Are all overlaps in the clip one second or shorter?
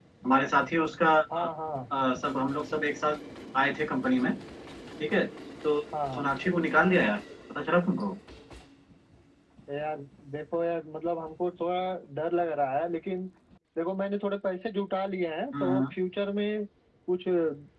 Yes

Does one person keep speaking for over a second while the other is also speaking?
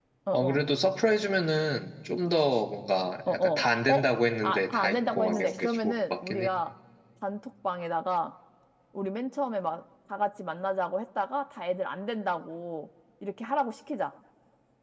Yes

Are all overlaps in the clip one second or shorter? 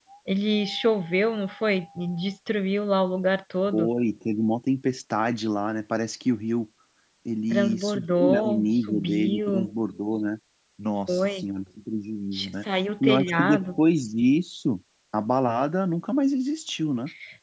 No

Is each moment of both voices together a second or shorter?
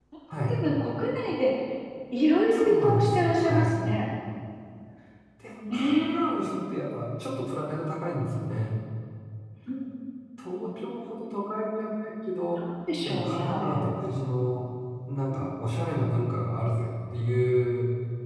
No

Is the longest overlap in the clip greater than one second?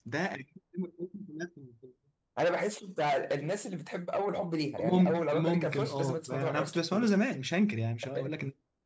Yes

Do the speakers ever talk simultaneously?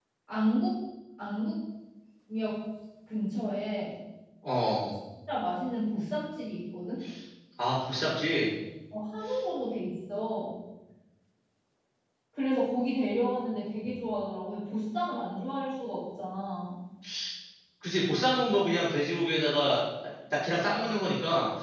No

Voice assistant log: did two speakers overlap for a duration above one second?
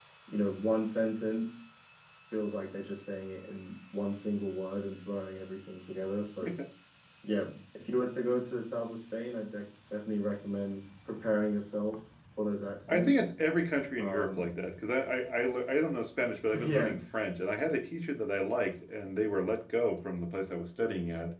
No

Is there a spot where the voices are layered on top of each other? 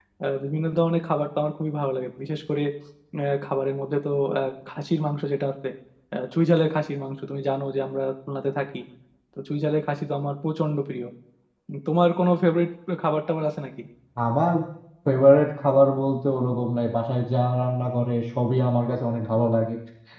No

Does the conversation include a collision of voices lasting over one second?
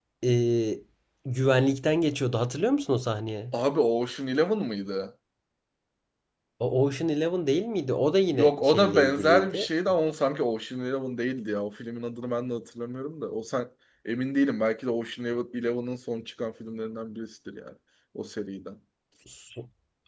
Yes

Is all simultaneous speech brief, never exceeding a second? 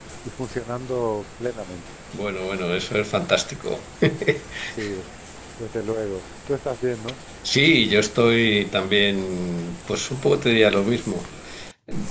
Yes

